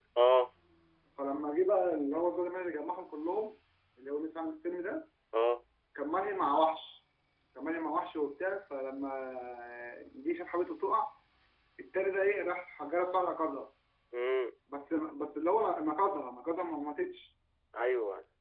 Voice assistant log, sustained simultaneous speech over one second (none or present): none